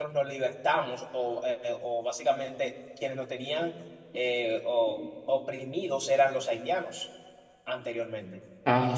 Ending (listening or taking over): listening